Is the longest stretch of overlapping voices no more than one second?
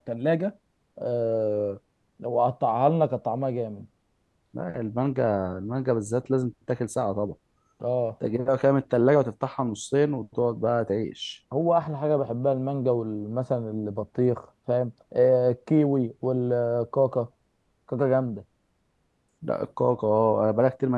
Yes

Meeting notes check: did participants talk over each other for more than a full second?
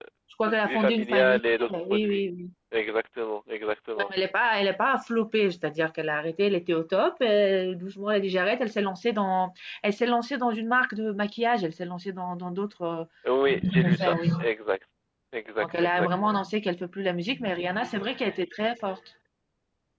Yes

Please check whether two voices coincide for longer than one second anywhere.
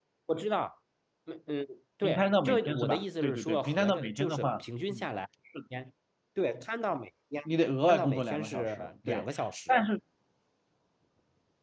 Yes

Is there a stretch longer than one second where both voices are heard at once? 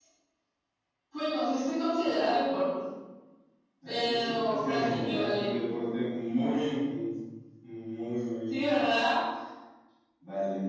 Yes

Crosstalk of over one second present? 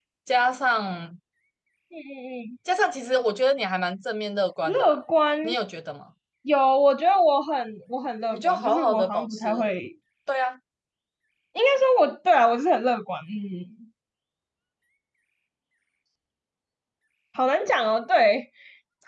Yes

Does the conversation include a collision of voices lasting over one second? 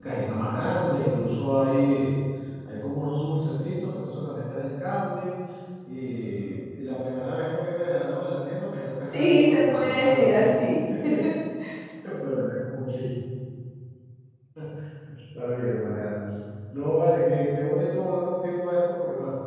Yes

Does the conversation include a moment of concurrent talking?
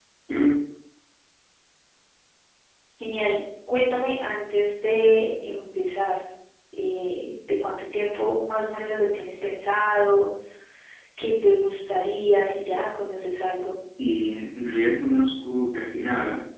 No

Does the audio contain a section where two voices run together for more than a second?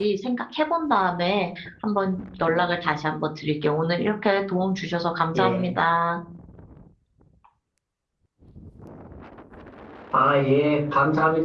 No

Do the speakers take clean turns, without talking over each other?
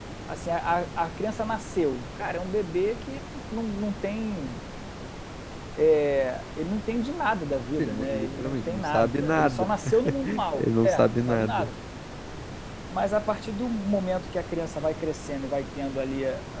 No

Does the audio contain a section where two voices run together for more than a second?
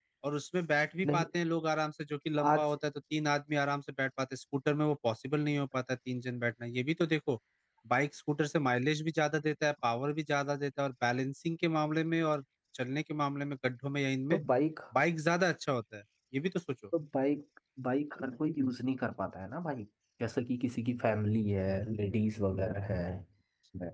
No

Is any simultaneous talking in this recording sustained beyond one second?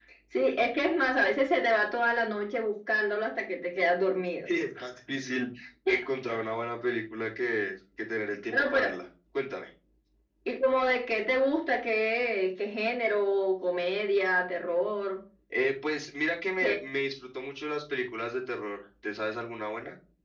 No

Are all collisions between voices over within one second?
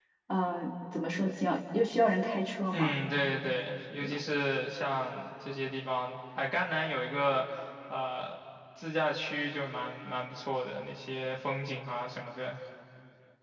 Yes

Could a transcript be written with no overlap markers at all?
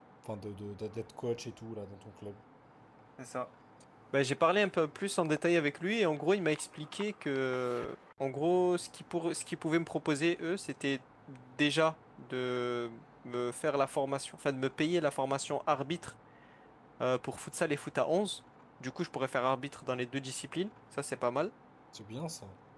Yes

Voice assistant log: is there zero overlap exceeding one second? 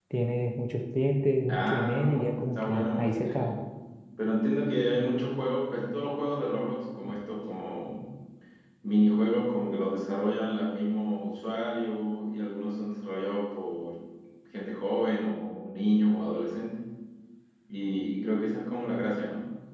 No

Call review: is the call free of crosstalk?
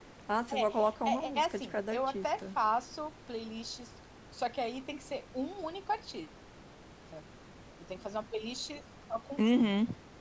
No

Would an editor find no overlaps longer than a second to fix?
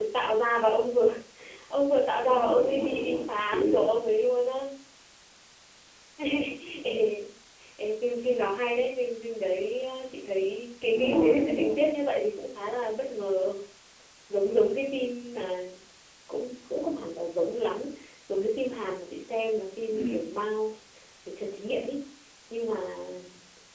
No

